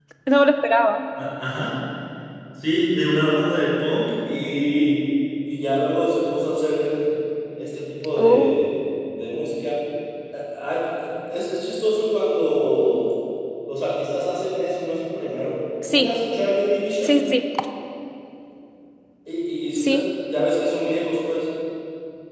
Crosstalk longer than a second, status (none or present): none